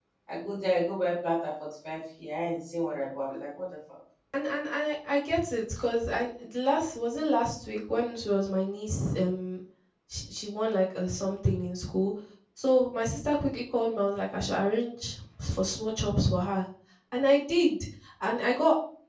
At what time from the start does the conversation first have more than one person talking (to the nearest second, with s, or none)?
none